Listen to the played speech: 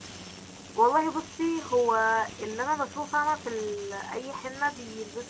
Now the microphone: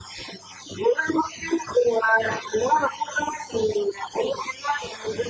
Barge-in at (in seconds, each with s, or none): none